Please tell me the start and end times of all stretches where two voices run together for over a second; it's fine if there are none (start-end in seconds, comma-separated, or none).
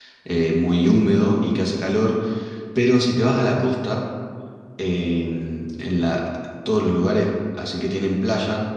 none